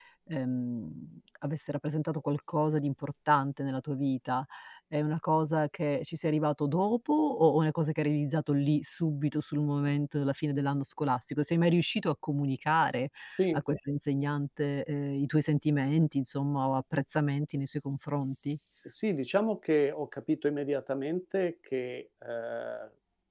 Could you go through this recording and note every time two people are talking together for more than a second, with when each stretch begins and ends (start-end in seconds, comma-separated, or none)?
none